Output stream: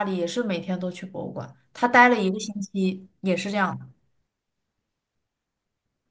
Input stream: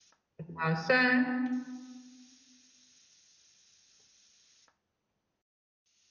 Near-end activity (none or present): present